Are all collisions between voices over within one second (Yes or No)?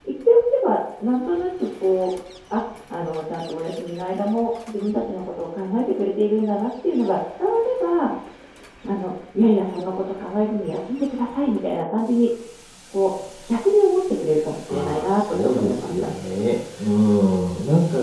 No